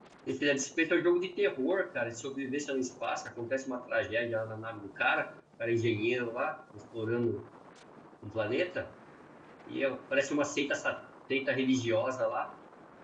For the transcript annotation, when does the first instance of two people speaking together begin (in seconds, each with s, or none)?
none